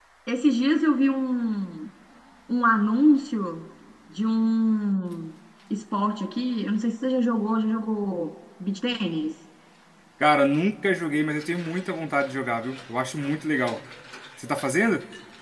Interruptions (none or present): none